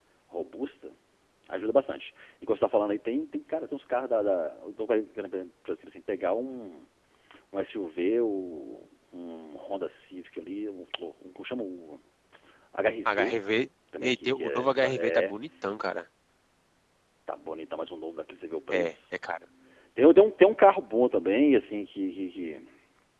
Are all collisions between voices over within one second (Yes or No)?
No